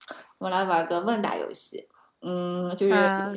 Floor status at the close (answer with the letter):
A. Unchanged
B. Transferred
A